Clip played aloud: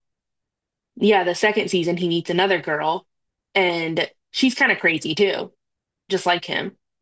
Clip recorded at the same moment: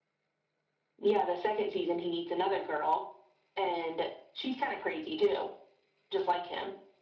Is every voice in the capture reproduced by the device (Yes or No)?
Yes